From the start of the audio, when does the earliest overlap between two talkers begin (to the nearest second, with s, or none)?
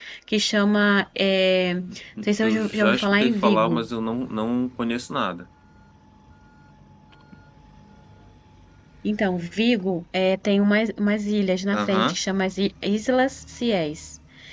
2 s